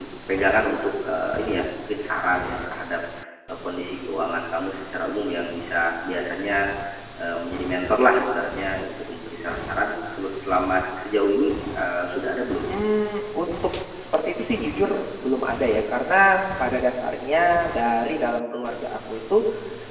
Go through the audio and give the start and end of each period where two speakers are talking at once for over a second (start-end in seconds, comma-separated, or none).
none